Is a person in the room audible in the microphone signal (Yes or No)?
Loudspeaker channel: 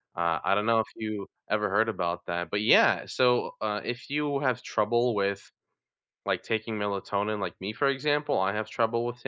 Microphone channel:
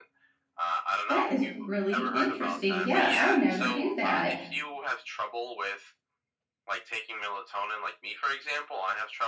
Yes